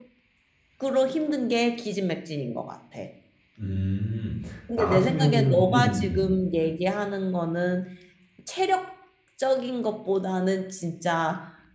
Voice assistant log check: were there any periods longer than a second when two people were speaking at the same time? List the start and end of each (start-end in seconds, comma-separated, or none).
4.8-6.2